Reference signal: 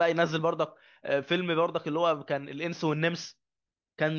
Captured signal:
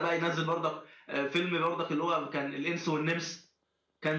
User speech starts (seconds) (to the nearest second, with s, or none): none